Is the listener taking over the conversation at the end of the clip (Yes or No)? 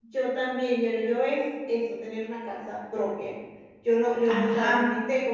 No